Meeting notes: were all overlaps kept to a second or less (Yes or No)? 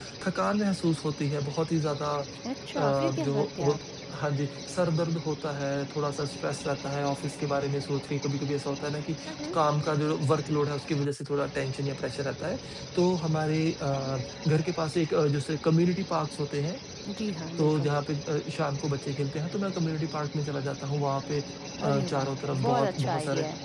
No